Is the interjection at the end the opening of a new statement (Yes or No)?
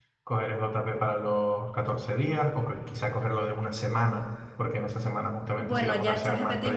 Yes